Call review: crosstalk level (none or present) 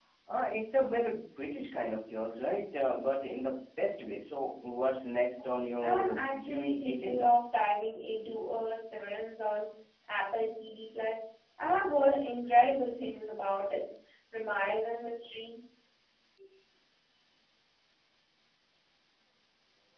present